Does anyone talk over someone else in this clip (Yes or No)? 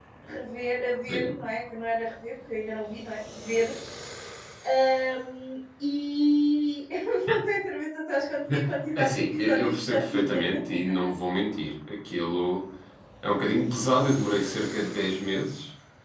Yes